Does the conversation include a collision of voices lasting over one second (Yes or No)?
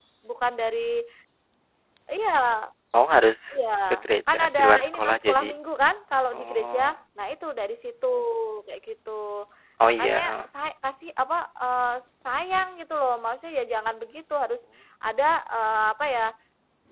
Yes